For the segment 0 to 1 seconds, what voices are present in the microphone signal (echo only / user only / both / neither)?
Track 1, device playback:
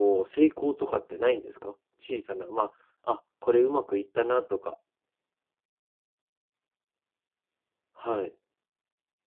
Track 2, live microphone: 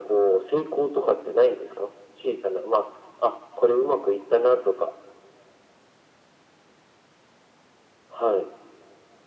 echo only